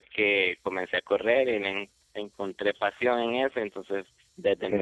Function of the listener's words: listening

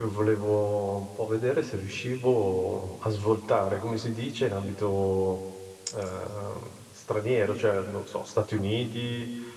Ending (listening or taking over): listening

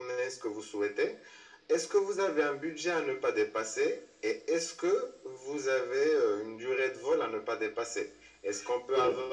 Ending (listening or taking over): listening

